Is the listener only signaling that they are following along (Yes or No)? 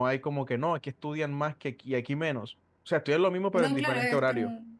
No